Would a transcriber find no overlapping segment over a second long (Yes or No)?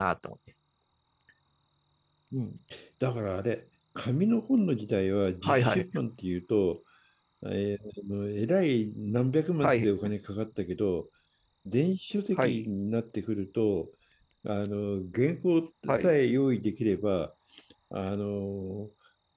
Yes